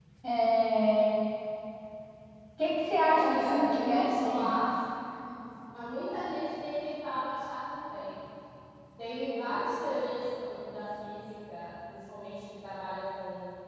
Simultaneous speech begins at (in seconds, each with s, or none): 3.0 s